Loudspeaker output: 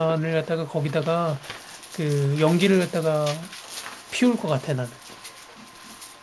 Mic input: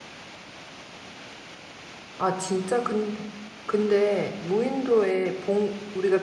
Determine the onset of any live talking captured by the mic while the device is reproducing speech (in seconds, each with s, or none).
2.2 s